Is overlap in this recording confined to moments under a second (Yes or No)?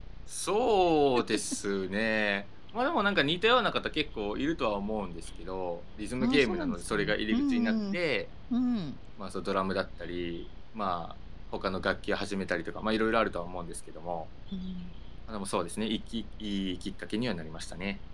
No